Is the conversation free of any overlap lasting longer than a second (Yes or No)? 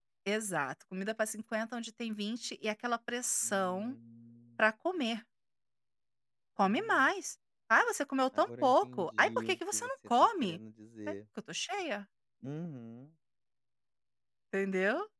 No